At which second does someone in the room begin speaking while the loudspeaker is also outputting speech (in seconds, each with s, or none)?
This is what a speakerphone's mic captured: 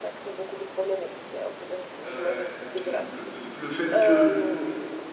2.0 s